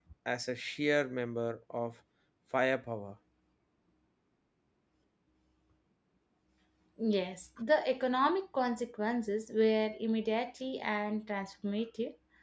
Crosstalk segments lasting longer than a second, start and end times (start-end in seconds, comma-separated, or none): none